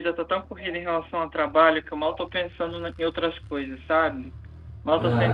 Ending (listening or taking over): listening